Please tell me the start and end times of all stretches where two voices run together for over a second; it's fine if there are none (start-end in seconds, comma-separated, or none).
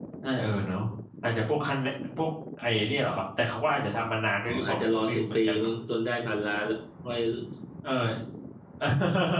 4.5-5.7